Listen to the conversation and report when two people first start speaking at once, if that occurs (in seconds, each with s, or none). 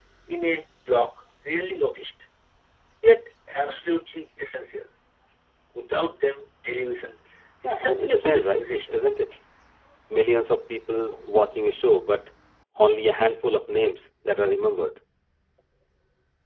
7.6 s